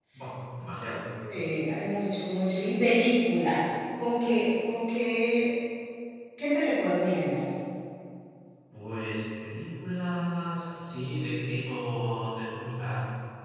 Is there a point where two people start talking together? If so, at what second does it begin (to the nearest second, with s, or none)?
none